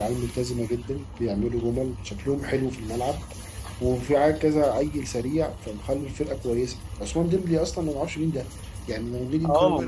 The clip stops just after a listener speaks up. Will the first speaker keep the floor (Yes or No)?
Yes